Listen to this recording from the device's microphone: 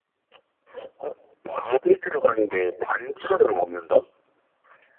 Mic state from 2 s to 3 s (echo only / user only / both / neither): echo only